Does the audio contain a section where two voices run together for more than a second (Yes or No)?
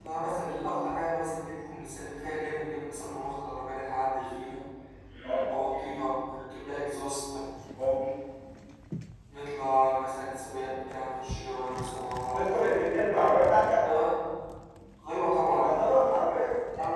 No